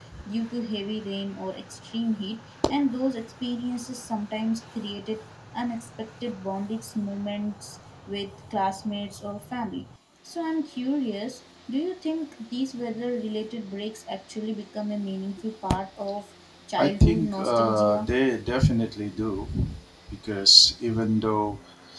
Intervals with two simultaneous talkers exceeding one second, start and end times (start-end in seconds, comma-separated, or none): 16.8-18.1